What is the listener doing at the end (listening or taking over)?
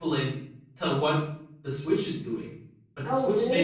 listening